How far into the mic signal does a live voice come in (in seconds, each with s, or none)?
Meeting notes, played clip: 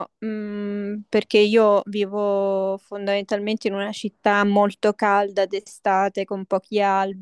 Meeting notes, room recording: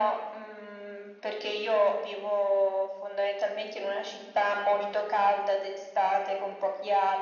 none